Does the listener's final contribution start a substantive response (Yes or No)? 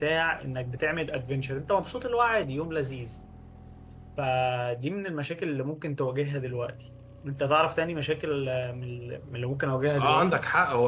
Yes